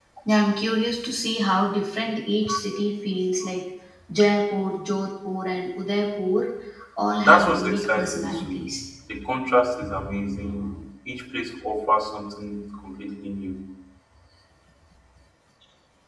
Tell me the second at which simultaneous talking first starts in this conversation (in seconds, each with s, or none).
7.2 s